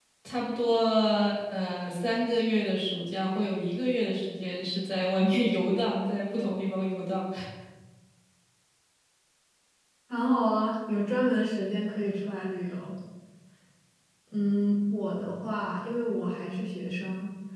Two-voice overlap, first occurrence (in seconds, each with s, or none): none